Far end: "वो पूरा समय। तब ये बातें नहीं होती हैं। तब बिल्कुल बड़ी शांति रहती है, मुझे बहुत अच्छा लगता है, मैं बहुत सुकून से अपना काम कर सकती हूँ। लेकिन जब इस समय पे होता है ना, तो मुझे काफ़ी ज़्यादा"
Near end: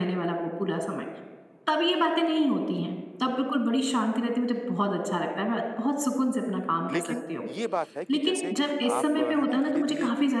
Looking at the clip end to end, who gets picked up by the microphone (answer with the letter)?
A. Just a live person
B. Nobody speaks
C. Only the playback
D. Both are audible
D